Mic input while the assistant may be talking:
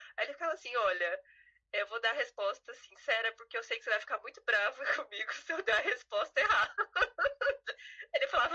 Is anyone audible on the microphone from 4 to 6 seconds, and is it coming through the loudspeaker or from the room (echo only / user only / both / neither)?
echo only